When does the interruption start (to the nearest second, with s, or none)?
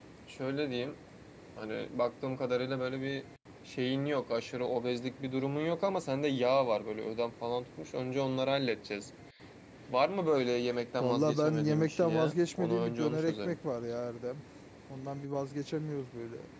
11 s